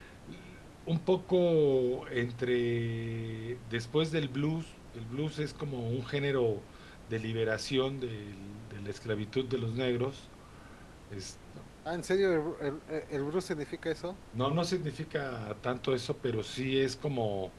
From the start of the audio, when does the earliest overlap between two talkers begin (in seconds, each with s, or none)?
none